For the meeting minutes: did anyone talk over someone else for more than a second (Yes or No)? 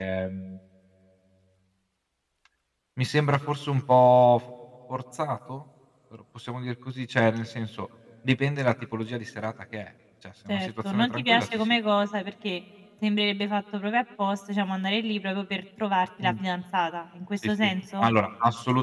Yes